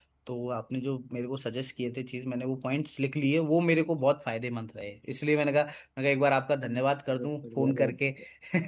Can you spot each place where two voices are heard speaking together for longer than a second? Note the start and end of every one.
6.6-8.0

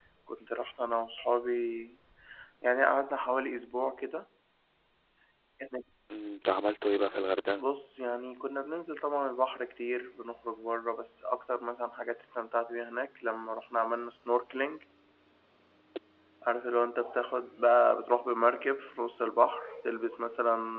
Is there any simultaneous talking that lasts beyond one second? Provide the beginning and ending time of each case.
none

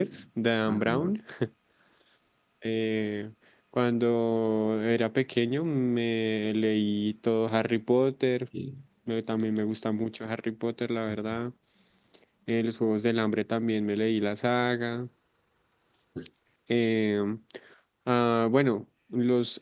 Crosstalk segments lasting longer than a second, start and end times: none

